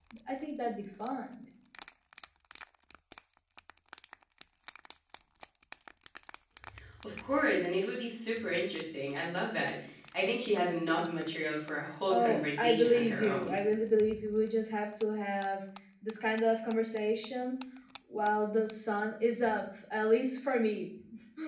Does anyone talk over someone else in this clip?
Yes, from 12.1 s

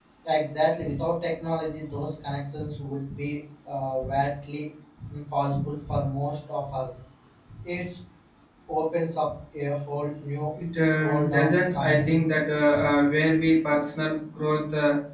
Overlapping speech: Yes, from 11.0 s

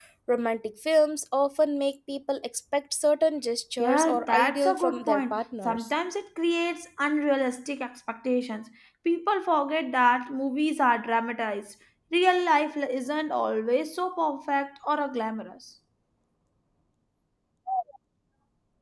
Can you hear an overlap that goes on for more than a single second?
Yes, from 3.8 s

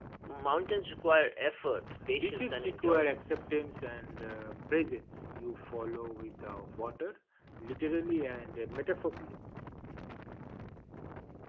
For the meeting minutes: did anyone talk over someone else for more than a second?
Yes, from 2.1 s

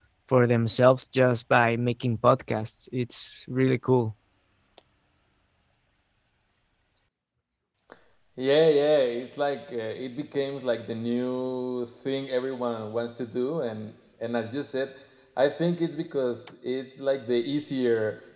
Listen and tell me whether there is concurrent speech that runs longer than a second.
No

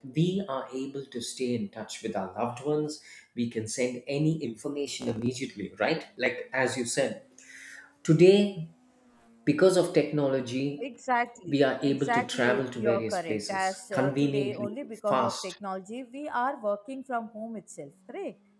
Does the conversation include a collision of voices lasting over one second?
Yes, from 11.5 s

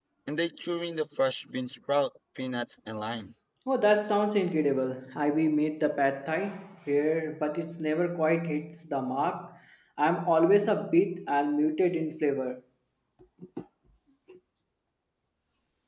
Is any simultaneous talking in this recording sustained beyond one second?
No

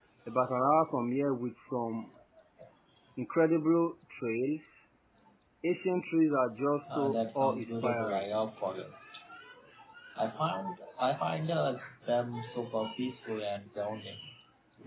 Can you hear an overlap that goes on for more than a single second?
Yes, from 6.7 s

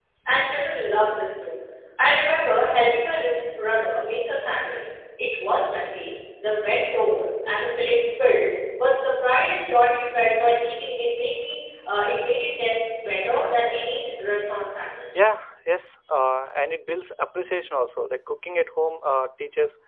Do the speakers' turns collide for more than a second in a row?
No

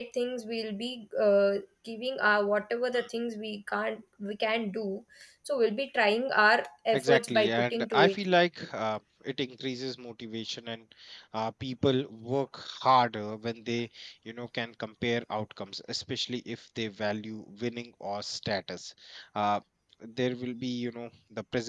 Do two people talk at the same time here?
Yes, from 6.9 s

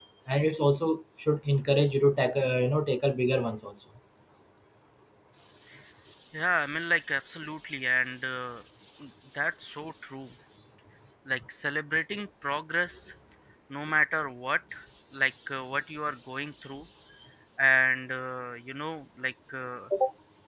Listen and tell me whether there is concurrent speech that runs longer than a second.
No

